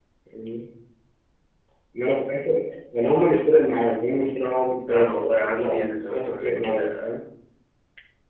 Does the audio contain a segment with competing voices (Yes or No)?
Yes